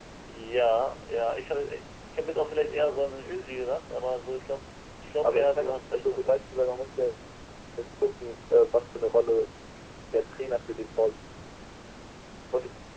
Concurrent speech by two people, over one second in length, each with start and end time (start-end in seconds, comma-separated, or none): 5.2-6.4